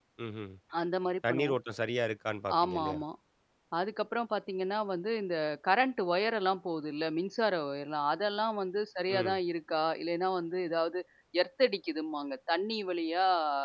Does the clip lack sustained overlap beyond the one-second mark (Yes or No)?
Yes